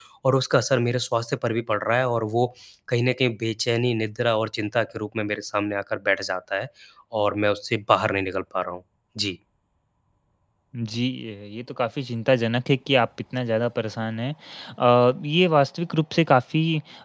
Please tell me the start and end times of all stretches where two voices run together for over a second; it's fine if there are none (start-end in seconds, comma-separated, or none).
none